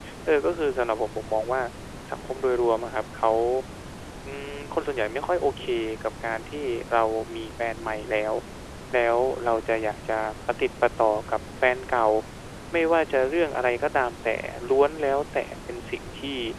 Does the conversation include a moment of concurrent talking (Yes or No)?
No